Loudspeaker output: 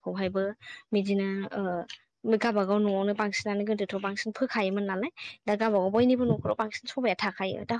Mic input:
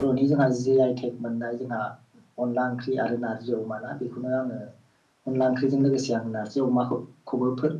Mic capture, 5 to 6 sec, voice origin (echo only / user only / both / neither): user only